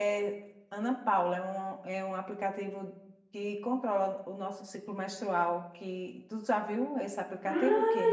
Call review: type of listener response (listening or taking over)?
taking over